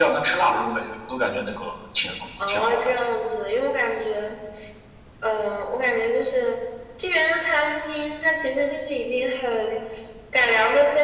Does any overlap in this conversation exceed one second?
No

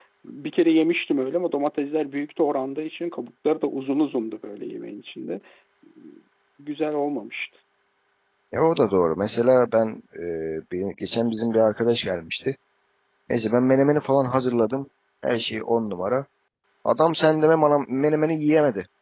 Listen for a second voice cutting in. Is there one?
No

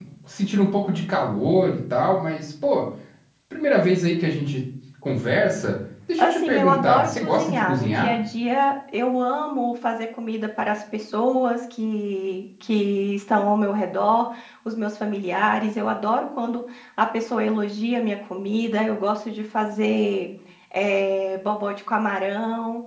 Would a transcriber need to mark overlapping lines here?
Yes, from 6.2 s

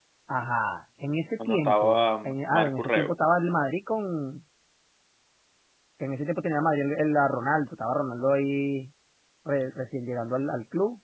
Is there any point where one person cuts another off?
Yes, from 1.4 s

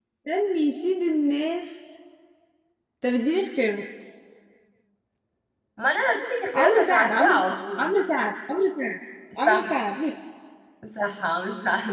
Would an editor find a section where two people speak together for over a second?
Yes, from 6.5 s

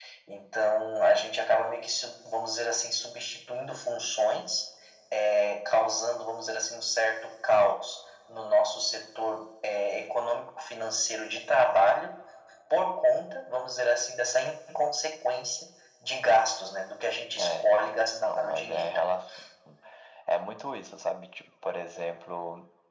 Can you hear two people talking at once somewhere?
Yes, from 17.4 s

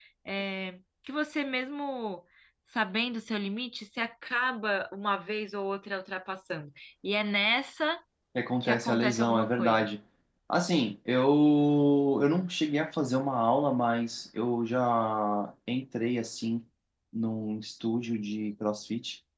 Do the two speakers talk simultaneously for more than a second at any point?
Yes, from 8.6 s

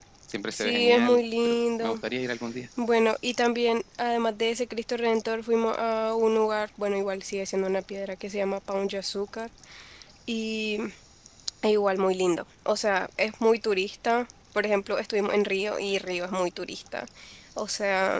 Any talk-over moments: Yes, from 0.5 s

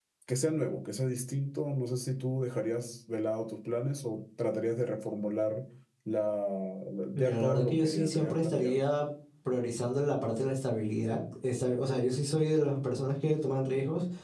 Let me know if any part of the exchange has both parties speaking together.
Yes, from 7.2 s

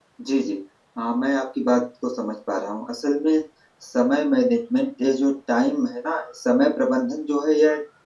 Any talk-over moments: No

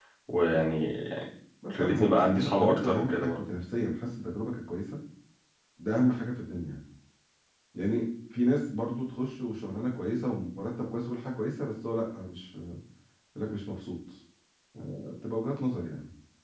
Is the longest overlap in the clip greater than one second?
Yes, from 1.8 s

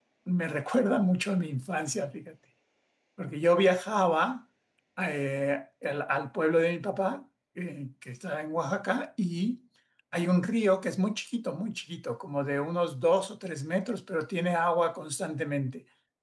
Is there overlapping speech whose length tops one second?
No

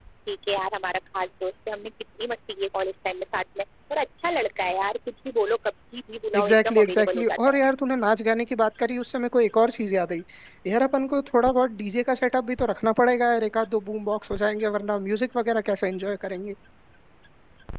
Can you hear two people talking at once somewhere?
Yes, from 6.3 s

